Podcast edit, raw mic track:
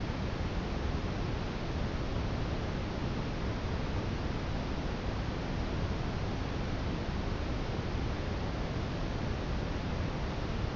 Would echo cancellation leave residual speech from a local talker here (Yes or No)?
No